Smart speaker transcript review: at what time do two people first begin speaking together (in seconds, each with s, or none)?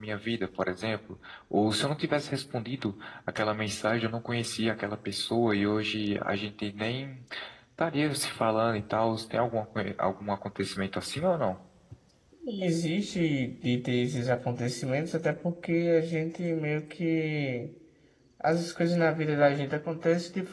none